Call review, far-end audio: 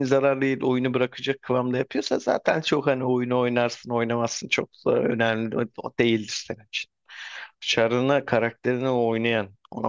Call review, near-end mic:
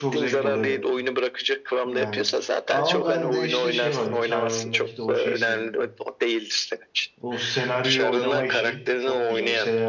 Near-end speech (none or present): present